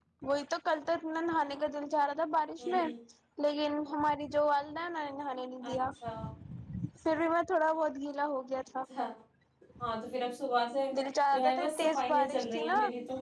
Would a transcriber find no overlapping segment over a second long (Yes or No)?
No